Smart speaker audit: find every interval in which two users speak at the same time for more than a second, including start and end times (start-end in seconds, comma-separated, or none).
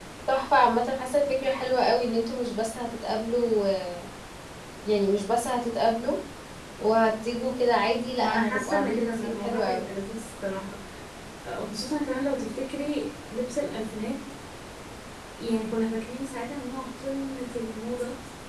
8.2-9.8